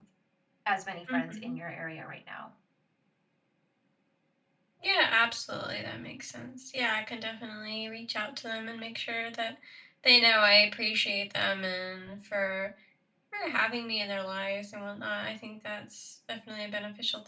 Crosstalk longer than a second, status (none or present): none